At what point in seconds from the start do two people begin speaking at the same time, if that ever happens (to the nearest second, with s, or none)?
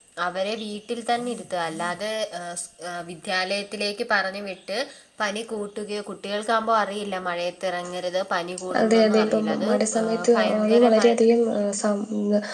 9 s